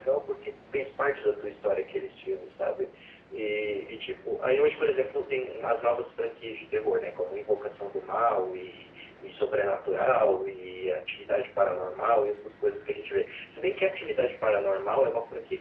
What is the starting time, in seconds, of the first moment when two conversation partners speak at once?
none

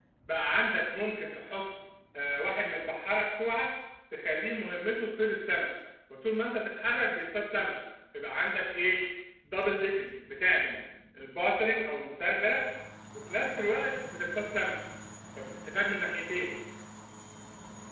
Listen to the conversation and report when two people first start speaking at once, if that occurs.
none

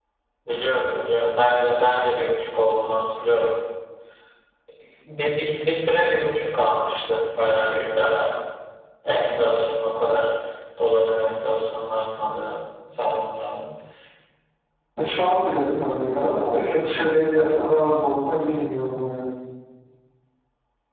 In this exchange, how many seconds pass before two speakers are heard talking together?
none

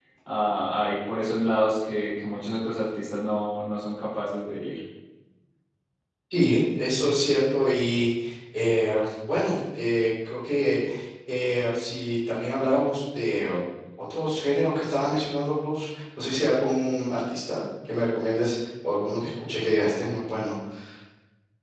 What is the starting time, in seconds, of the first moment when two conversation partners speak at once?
none

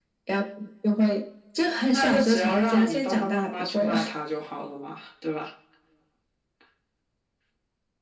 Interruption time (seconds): 2 s

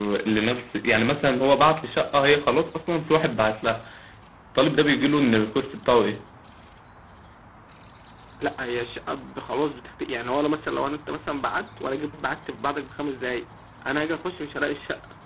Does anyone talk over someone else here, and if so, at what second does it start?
none

